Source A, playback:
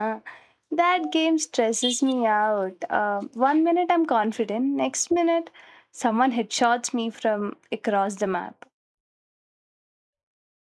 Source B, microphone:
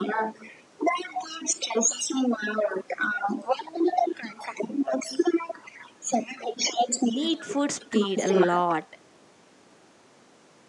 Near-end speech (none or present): present